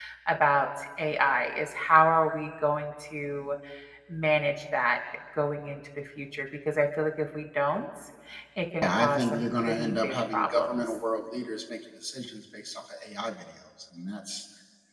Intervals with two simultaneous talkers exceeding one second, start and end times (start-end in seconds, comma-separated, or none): 8.8-11.0